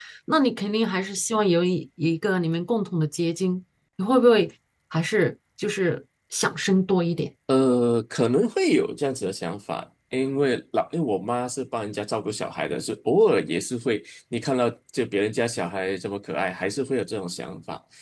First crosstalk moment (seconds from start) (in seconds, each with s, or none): none